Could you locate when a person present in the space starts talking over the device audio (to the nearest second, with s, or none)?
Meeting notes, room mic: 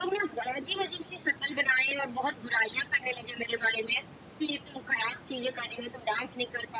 none